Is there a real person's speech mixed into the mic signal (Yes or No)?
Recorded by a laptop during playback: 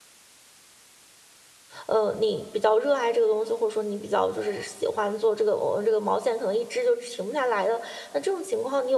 Yes